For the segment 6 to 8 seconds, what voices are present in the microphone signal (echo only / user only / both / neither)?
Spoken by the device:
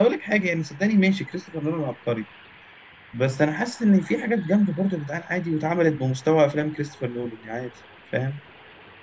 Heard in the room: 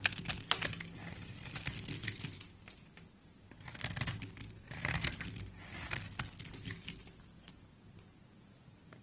neither